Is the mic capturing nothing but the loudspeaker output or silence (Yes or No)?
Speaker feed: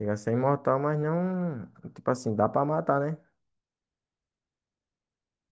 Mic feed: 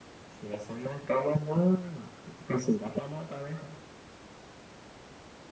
Yes